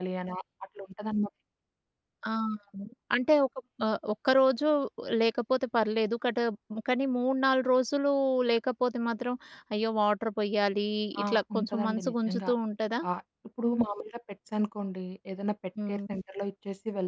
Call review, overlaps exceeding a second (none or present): present